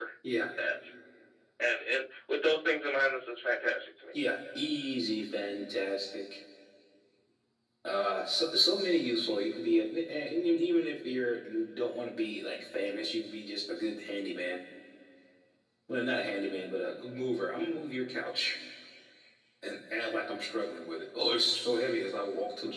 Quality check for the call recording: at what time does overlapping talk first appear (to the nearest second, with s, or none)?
none